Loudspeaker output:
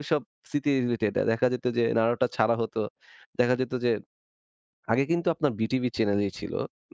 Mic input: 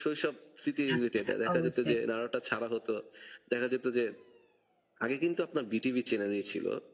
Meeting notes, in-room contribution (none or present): present